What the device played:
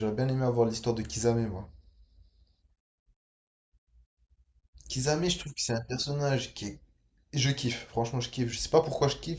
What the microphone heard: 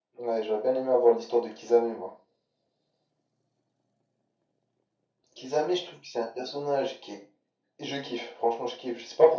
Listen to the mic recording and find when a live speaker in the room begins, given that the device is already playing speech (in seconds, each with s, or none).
none